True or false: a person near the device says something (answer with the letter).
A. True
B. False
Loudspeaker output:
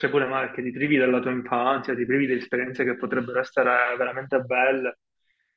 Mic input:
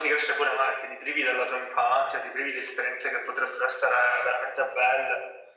B